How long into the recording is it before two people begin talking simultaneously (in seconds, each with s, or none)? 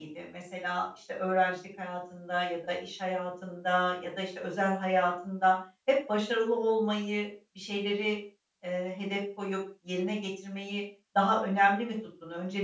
none